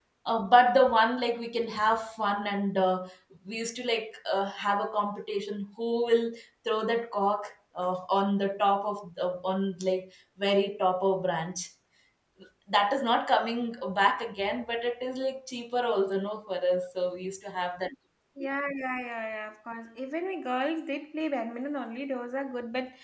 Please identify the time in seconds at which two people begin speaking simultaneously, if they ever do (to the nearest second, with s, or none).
none